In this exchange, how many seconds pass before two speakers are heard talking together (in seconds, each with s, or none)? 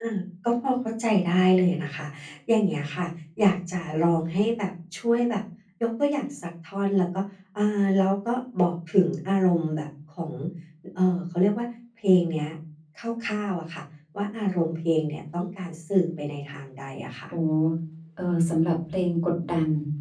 none